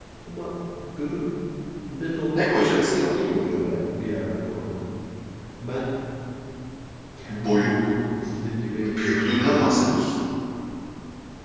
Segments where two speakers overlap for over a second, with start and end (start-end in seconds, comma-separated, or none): 8.7-9.9